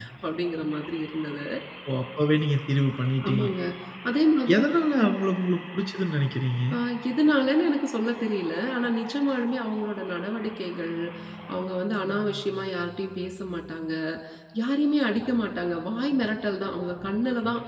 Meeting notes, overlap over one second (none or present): none